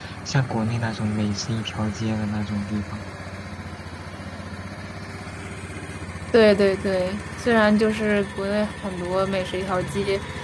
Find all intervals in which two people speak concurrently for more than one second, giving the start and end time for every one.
none

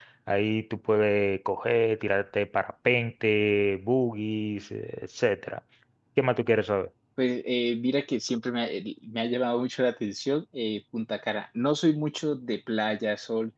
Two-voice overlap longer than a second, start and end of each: none

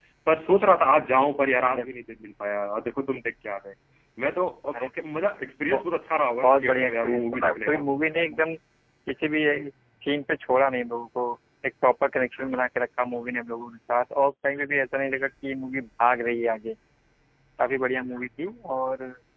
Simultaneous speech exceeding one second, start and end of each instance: 6.4-7.8

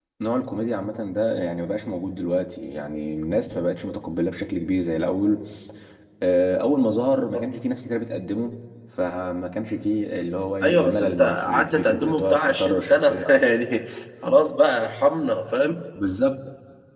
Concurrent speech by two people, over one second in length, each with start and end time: 10.6-13.4

